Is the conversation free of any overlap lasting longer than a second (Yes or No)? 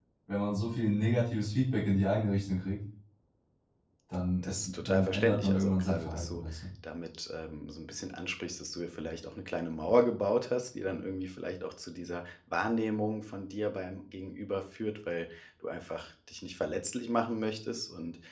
No